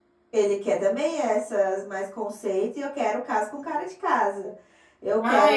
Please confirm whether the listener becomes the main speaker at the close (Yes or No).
Yes